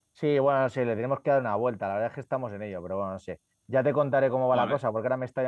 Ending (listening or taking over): listening